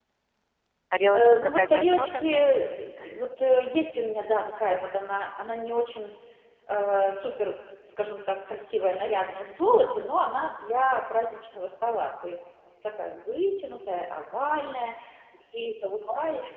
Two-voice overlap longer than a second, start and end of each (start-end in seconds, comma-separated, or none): 1.2-2.5